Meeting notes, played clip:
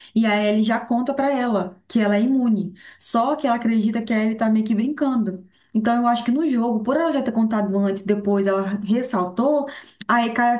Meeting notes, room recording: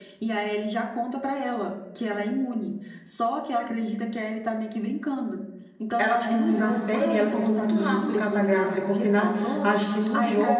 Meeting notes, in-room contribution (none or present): present